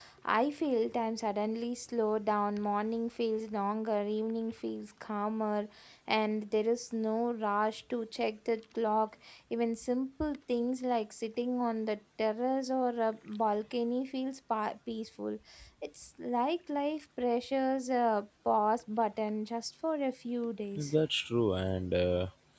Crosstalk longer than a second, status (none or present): none